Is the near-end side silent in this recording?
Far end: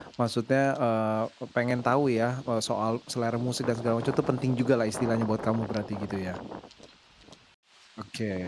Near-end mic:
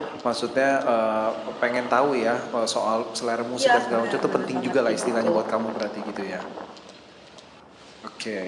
No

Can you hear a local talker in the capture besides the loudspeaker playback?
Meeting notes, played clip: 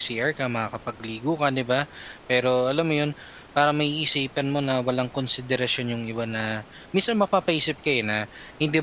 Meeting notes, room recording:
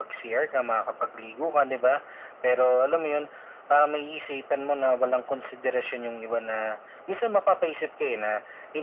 No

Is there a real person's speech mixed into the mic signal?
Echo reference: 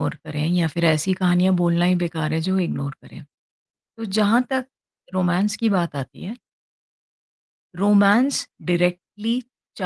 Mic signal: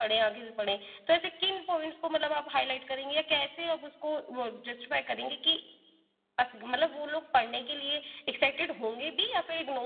Yes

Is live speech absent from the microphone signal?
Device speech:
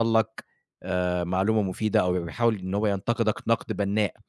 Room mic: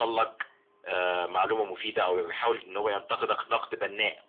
Yes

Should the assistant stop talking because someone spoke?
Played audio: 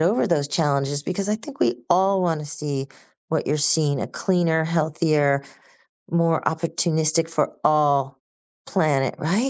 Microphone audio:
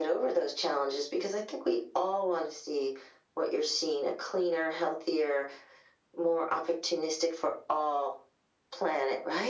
No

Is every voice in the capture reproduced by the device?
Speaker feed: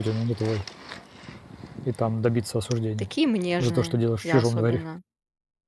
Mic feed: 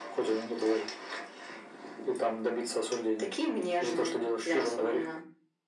Yes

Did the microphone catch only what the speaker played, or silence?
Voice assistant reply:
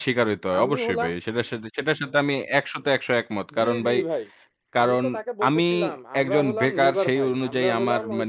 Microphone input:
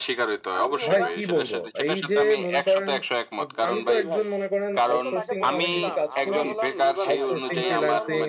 No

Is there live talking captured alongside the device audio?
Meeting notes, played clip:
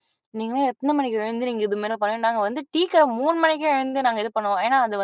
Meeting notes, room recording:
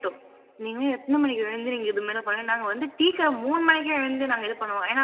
No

